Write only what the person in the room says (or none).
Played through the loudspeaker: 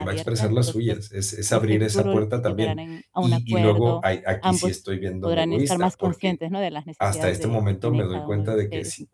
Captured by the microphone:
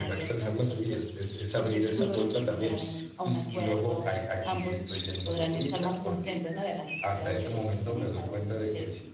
Ujú.